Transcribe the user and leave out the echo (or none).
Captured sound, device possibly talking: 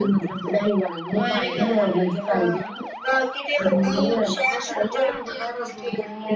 ਉਹ ਇਹ ਵੀ ਗੱਲ ਹੈਗੀ